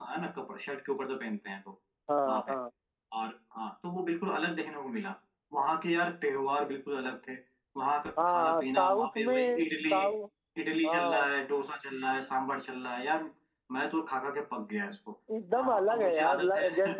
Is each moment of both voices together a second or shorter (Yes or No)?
No